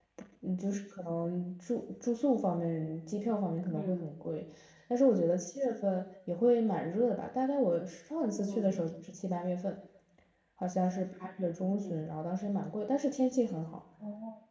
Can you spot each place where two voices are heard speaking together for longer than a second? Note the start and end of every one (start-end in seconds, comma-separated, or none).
none